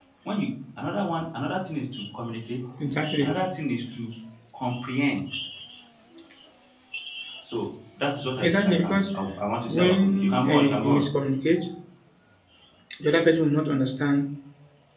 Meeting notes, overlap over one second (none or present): present